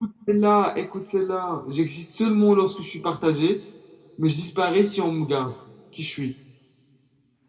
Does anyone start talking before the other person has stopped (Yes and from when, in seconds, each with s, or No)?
No